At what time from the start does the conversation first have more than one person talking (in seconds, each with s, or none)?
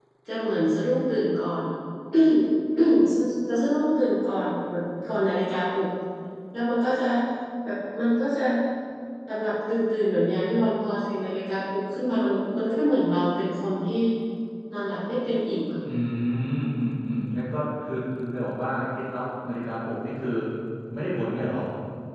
none